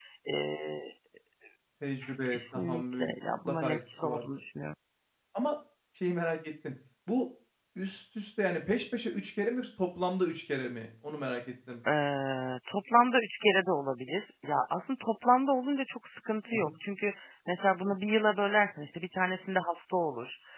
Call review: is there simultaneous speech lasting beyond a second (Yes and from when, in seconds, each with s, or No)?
Yes, from 2.3 s